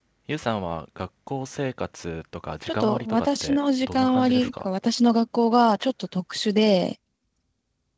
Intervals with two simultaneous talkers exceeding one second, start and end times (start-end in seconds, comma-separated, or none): 2.7-4.7